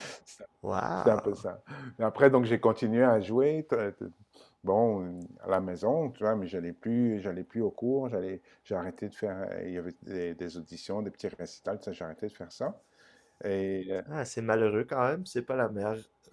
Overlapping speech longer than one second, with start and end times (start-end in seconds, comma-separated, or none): none